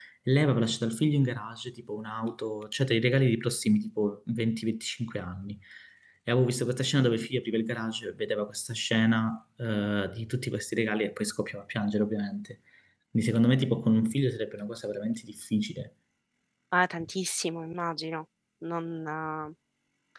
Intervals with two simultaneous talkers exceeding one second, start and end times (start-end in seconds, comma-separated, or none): none